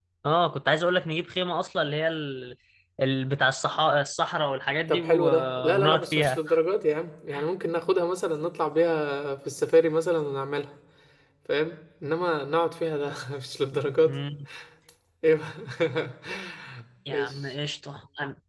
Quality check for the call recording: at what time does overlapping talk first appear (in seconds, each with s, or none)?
4.9 s